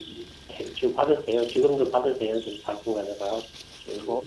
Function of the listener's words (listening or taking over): taking over